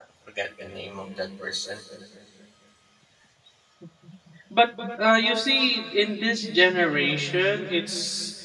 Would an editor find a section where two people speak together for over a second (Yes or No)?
No